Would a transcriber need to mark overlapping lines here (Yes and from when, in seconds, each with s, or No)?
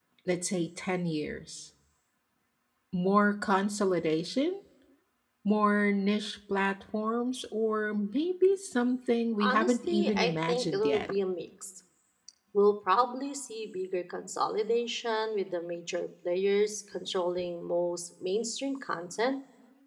Yes, from 9.4 s